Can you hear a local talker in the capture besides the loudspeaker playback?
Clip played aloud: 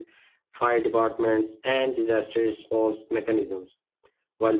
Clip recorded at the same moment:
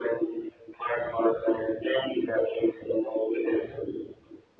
No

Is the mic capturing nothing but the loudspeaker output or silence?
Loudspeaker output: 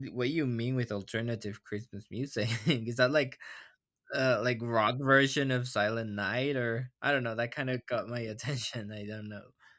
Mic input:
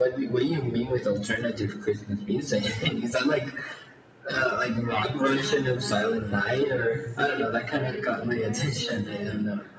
No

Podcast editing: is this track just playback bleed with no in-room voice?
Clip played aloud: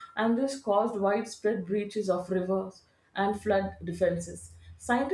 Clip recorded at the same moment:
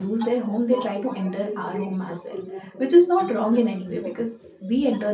No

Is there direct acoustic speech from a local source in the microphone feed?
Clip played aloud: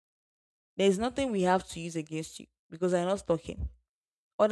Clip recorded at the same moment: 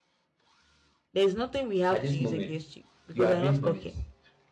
Yes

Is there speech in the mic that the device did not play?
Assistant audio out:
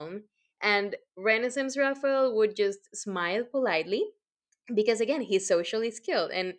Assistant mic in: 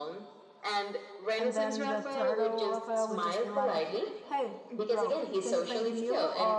Yes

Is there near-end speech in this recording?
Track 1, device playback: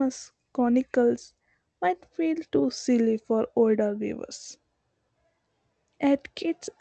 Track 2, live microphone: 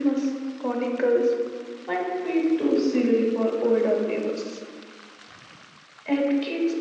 No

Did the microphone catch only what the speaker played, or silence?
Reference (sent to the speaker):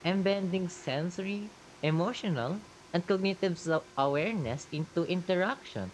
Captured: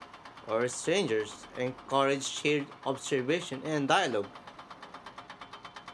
No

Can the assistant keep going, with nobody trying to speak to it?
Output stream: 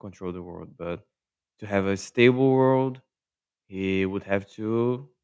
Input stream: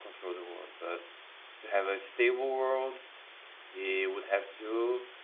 Yes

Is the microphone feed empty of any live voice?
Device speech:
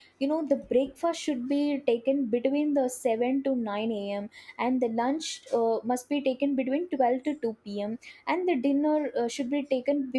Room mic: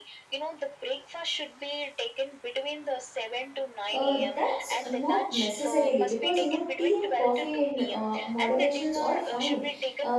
No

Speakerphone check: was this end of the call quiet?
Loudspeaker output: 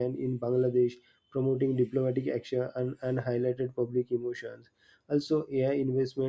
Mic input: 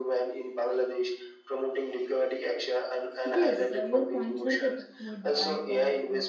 No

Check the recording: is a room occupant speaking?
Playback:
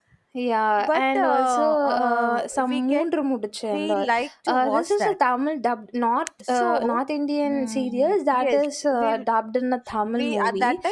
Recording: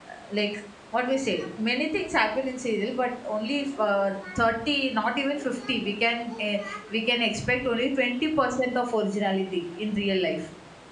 Yes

